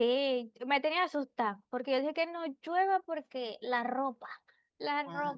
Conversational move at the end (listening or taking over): taking over